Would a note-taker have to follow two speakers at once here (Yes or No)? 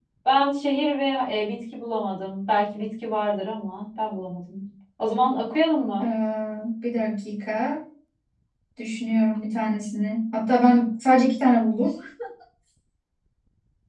No